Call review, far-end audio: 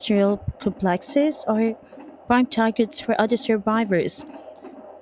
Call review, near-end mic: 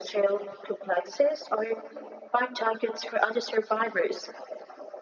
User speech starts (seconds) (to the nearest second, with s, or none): none